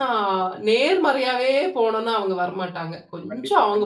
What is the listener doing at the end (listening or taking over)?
taking over